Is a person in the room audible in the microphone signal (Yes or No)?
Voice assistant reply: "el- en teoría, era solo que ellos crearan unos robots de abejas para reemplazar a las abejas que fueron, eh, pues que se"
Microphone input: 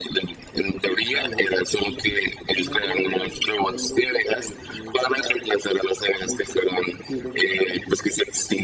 Yes